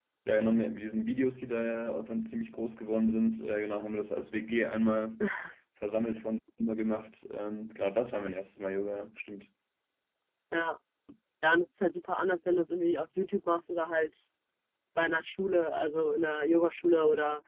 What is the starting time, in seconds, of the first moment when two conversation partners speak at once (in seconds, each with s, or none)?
none